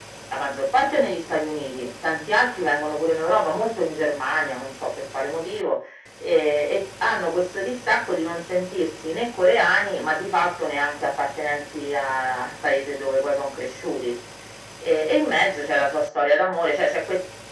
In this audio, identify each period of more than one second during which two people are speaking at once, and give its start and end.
none

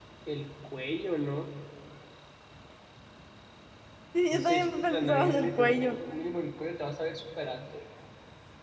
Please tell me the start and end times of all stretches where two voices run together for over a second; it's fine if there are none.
4.3-6.0

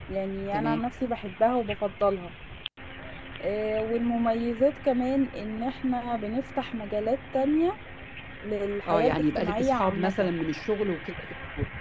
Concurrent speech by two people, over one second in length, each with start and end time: 8.9-10.3

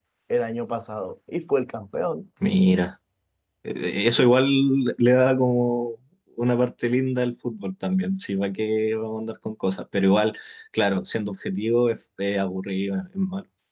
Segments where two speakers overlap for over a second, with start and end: none

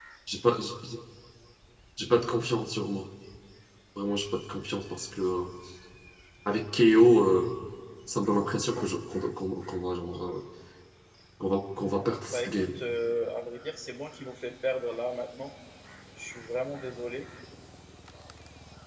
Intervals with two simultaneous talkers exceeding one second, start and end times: none

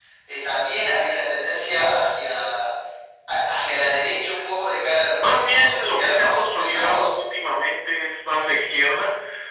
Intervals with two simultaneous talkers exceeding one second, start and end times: 5.2-7.1

